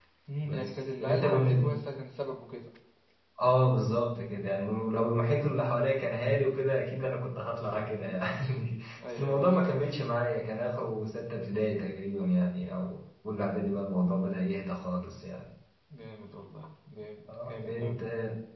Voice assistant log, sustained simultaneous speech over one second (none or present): present